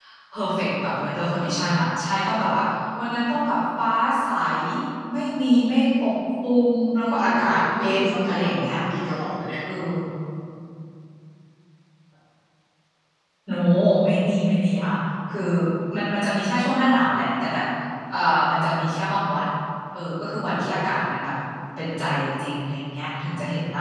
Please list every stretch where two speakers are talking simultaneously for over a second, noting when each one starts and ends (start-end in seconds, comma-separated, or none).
7.2-8.5